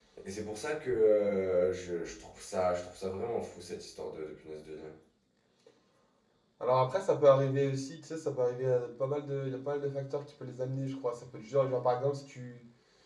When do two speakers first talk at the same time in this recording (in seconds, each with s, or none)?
none